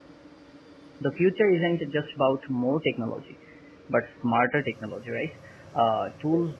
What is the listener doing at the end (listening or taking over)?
listening